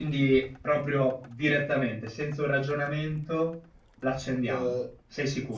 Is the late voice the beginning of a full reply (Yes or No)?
Yes